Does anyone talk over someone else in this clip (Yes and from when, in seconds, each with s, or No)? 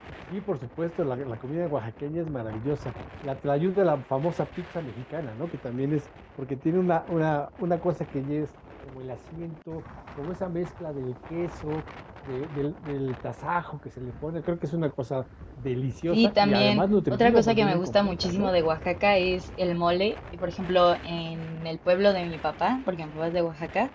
Yes, from 16.1 s